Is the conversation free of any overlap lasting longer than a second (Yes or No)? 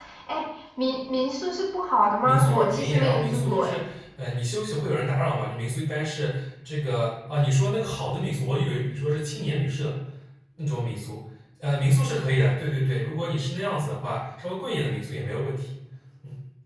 No